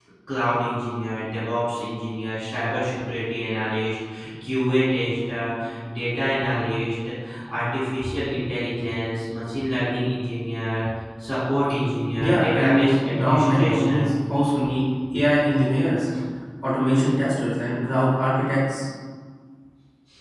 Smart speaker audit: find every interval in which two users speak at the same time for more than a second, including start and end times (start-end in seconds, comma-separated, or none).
12.2-14.1